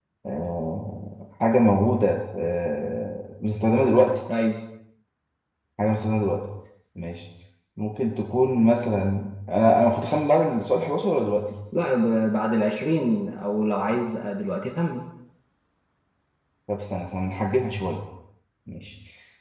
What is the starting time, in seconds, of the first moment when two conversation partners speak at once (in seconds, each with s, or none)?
none